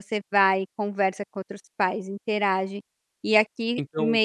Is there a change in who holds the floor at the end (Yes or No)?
No